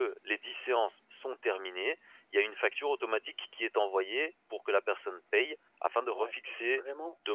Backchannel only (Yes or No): No